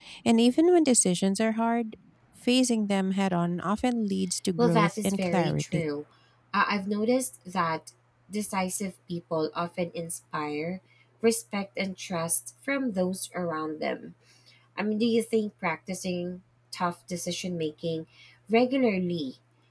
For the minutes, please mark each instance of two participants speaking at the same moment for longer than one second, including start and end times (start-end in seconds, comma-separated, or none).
4.6-5.9